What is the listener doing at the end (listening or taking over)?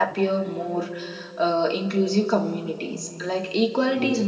listening